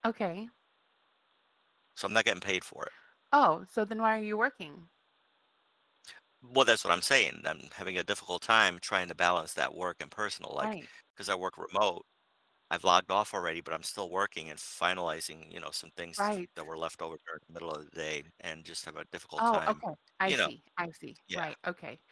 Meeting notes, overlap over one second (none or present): none